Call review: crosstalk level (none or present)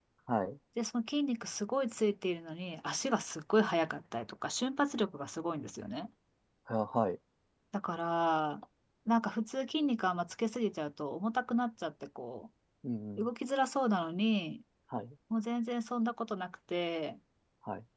none